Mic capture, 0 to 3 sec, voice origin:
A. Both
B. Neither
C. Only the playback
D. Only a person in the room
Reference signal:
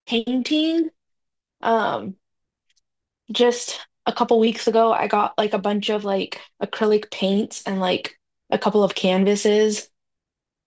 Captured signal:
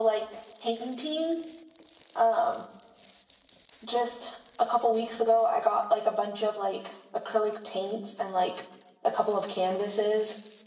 C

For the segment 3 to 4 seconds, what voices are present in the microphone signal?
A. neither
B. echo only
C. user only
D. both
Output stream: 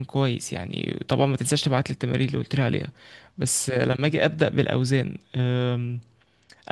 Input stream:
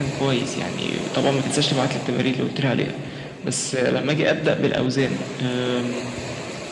B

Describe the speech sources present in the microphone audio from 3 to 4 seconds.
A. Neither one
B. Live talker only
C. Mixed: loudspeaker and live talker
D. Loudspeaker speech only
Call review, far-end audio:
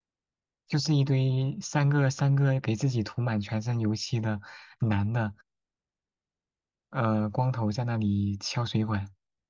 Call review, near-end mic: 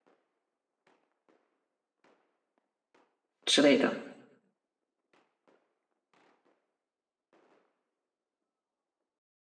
B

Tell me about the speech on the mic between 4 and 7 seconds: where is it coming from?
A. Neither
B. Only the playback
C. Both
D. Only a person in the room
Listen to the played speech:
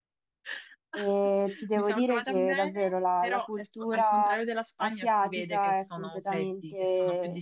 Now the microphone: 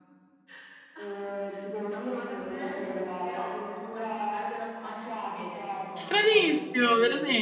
C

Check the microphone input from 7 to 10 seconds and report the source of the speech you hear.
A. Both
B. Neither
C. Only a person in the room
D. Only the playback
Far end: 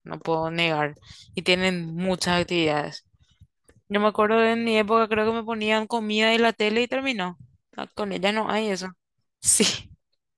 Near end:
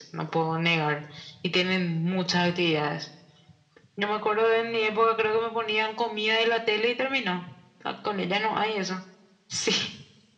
D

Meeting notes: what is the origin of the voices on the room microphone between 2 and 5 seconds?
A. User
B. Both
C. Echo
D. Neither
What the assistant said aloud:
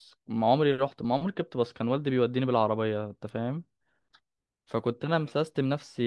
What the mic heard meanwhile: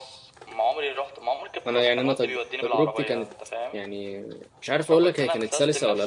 B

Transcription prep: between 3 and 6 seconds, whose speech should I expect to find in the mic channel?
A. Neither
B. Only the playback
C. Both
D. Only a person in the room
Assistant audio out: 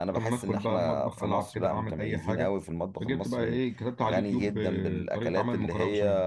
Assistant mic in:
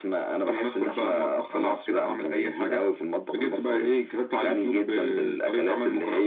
B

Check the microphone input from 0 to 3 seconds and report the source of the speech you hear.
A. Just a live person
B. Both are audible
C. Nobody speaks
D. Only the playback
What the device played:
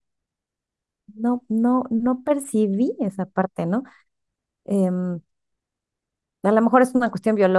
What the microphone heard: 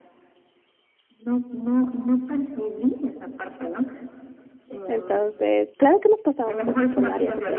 D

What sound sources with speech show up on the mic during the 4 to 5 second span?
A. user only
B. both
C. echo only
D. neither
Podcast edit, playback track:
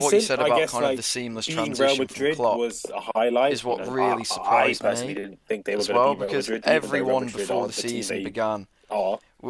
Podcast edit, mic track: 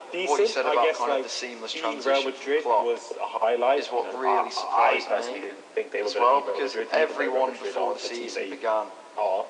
C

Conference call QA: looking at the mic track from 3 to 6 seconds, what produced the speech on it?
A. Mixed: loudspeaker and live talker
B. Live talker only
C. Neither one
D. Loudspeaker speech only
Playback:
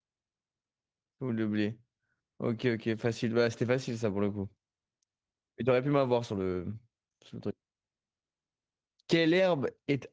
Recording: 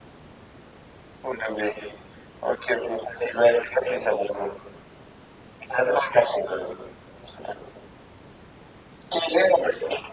D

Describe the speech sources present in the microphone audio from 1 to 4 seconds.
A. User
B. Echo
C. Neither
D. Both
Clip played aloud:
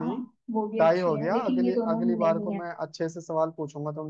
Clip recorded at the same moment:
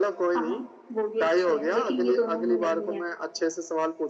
B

